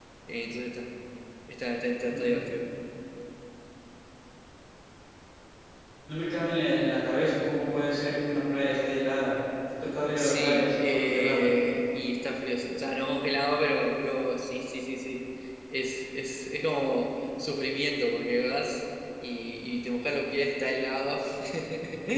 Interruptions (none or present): present